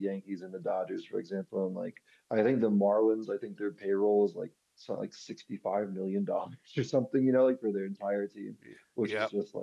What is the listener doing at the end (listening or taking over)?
listening